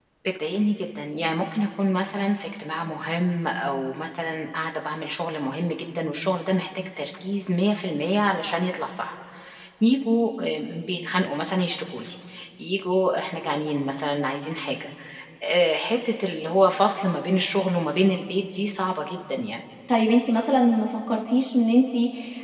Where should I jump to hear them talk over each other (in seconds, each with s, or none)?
none